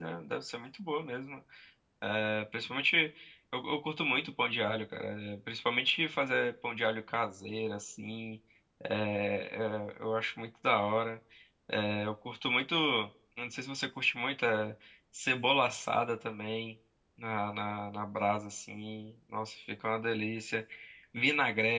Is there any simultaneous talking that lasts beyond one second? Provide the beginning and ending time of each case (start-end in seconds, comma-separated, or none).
none